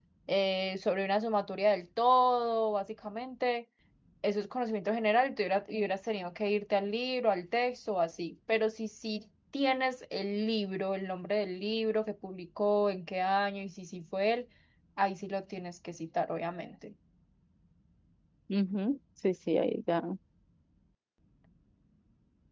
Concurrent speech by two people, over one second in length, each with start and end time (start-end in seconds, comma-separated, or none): none